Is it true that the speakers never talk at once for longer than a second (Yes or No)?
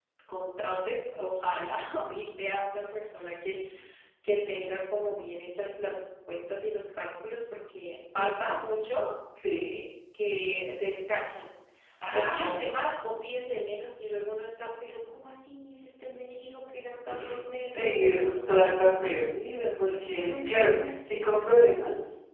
No